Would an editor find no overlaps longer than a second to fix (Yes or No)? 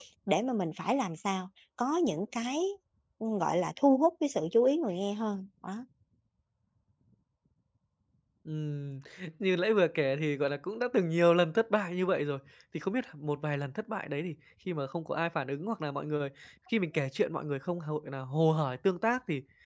Yes